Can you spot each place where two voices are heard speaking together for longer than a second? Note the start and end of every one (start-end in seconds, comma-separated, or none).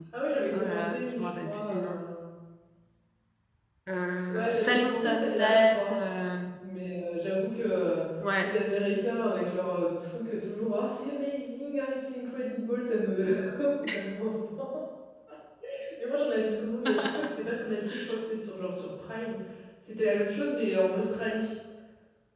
0.5-2.0, 4.3-6.0